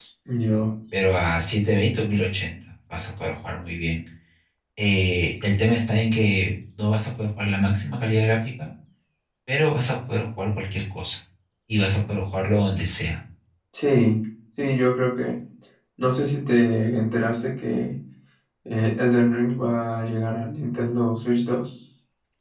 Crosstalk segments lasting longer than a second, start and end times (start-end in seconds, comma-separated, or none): none